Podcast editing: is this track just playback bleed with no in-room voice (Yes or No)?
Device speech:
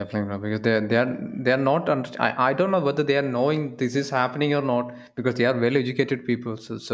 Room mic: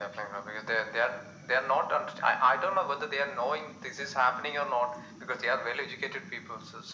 Yes